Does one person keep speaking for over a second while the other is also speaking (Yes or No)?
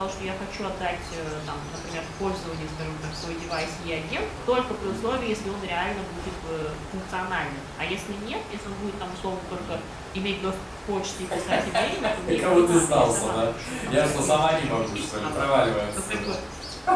Yes